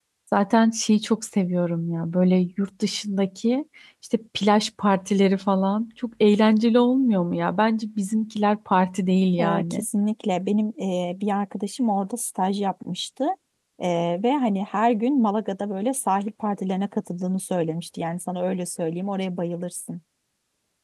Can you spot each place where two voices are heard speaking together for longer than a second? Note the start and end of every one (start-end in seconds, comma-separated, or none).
none